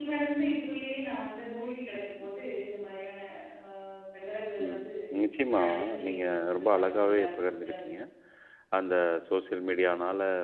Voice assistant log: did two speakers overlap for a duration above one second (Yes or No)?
Yes